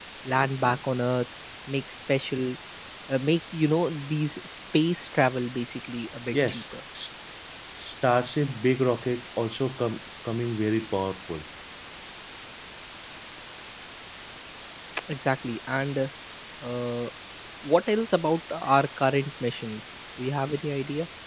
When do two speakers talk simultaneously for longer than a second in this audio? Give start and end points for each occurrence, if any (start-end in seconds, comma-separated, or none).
none